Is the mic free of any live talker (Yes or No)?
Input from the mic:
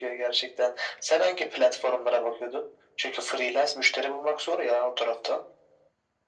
Yes